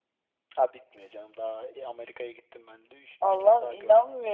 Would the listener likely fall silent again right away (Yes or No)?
No